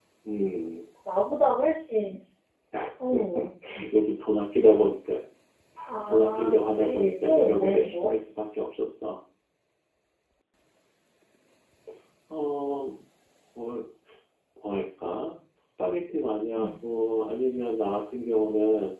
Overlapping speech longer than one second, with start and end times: 6.0-8.1

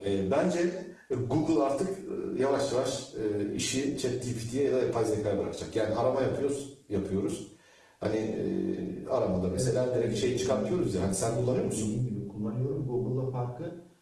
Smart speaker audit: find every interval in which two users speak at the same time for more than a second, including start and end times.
9.5-11.9

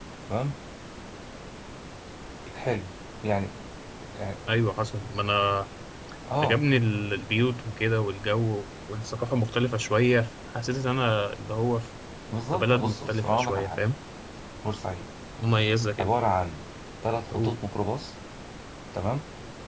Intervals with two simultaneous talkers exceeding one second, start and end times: 12.5-13.9

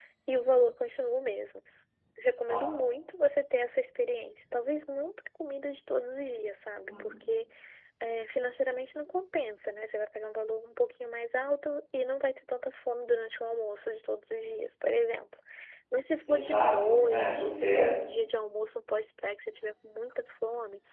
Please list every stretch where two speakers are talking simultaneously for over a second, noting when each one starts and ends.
16.3-17.9

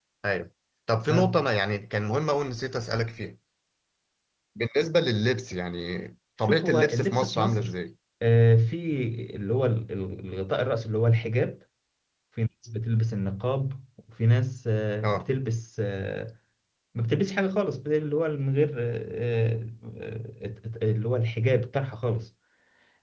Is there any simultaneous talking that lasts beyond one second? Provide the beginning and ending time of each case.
6.5-7.8

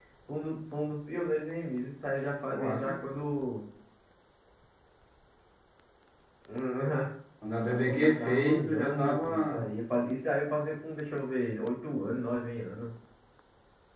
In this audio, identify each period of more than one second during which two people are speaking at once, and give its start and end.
7.6-9.6

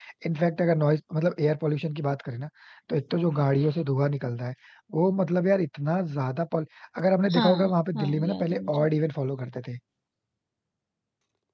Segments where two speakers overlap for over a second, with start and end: 7.3-8.9

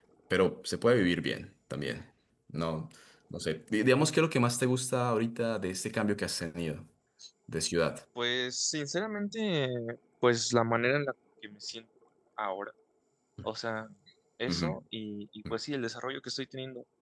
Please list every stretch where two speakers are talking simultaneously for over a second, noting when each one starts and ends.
none

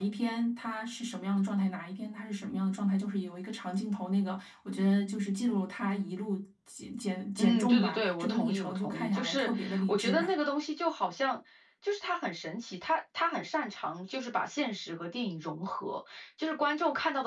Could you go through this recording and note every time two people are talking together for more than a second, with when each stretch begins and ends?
7.4-10.2

